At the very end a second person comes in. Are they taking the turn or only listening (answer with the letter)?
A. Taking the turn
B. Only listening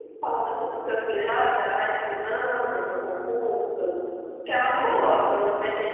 B